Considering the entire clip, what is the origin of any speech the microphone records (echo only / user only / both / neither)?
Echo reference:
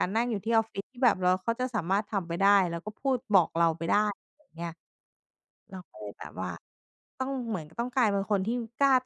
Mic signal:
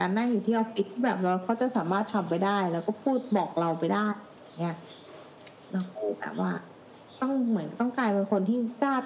echo only